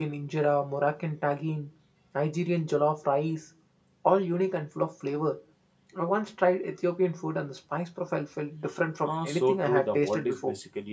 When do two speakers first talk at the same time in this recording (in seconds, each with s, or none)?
9.0 s